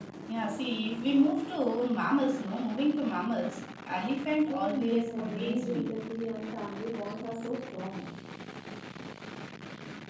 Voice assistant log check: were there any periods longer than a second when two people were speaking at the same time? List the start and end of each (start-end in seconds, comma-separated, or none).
4.5-5.9